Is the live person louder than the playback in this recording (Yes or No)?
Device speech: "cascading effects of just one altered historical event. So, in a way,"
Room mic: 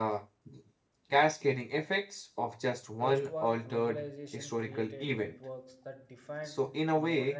No